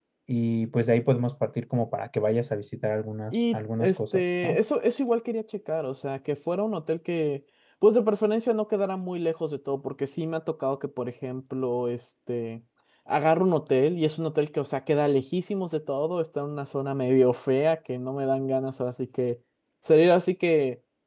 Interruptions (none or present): present